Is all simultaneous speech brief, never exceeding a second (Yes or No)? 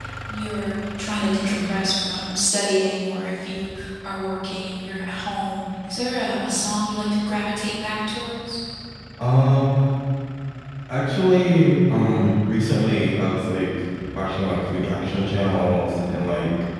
Yes